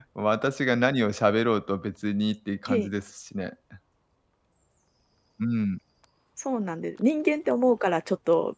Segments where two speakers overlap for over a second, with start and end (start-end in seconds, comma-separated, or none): none